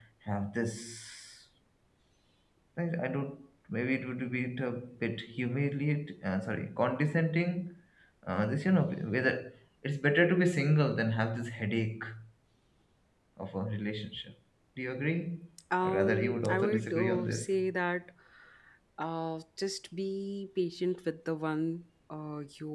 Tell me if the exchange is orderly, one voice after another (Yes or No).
No